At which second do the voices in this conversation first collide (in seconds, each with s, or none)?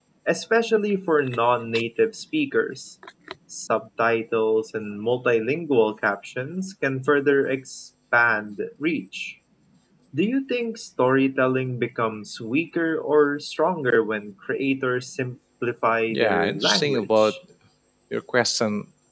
16.1 s